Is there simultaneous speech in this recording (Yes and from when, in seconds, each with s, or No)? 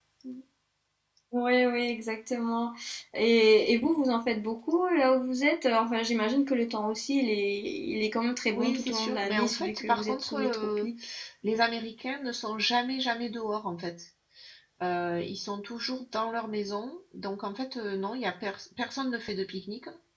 Yes, from 8.5 s